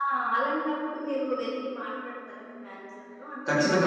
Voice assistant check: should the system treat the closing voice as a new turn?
Yes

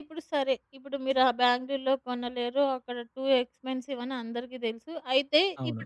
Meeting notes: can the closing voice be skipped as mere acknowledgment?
Yes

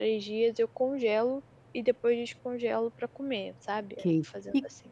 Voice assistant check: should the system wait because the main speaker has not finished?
No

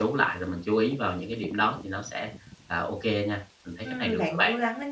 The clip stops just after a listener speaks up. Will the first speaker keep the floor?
No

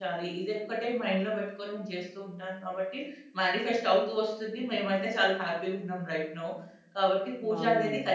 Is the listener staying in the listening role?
Yes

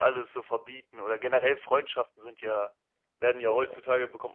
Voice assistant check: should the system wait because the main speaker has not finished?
Yes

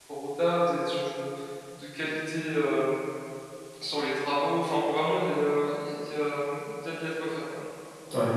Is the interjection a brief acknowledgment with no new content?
No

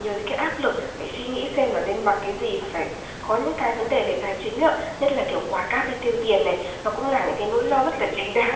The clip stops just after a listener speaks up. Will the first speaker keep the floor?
Yes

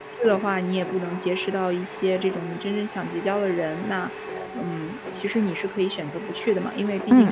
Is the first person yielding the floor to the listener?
No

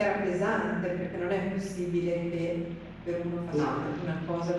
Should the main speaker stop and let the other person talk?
No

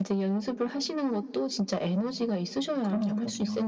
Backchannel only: No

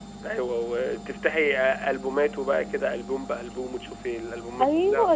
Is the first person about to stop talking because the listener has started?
Yes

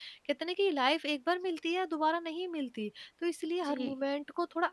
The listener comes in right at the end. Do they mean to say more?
No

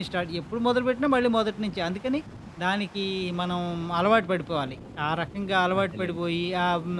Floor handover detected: No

